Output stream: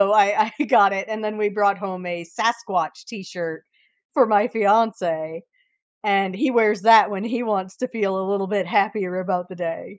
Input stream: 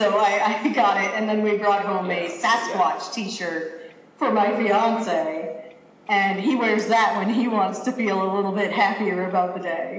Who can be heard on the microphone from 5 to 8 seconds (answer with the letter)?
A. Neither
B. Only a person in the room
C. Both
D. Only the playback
D